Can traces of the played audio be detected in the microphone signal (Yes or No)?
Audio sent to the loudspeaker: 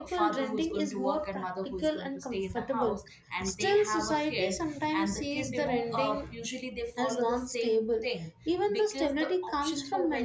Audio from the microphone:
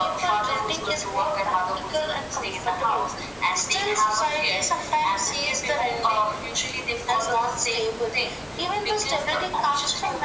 Yes